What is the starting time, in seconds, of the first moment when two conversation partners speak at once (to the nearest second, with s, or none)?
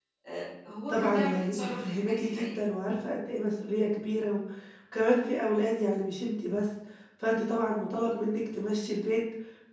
1 s